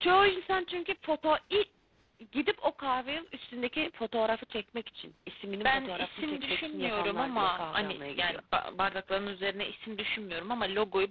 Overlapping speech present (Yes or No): Yes